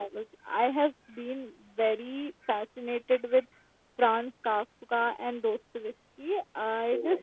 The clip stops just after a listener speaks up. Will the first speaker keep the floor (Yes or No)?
Yes